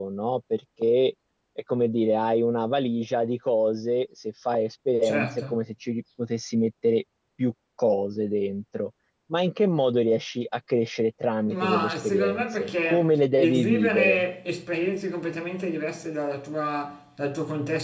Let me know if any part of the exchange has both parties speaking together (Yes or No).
Yes